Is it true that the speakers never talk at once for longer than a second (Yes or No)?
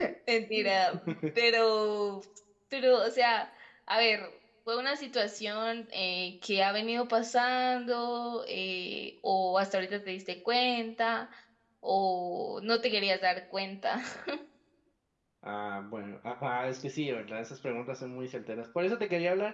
Yes